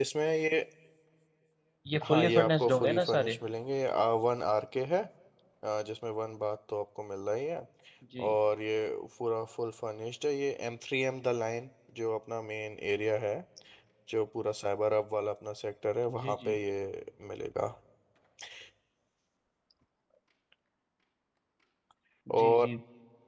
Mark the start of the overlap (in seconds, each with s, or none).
2.1 s